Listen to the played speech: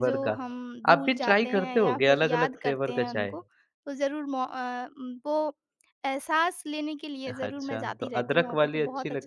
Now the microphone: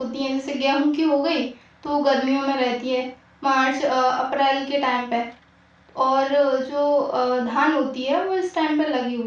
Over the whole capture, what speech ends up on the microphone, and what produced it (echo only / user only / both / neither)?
user only